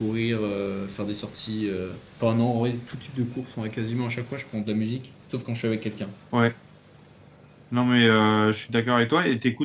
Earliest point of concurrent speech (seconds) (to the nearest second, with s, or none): none